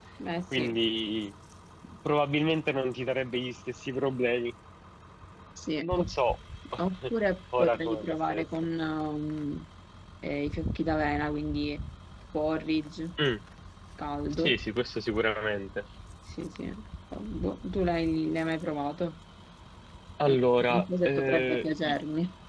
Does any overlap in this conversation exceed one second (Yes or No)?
Yes